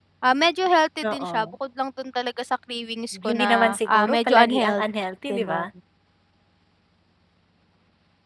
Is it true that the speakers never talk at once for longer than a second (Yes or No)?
No